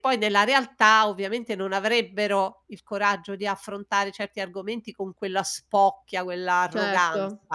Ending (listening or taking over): taking over